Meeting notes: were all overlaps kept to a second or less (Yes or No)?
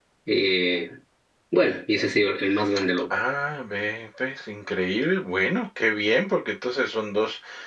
Yes